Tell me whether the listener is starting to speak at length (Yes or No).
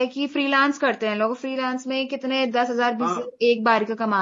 No